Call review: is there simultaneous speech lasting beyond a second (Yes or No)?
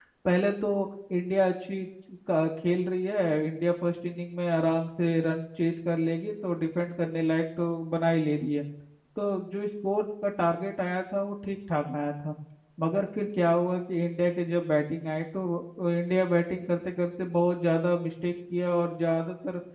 No